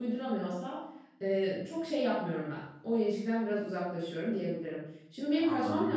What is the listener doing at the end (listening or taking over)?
listening